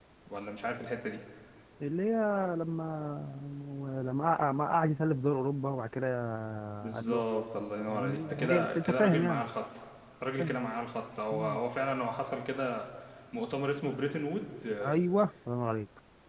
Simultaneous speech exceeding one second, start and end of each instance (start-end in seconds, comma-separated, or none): 7.9-9.4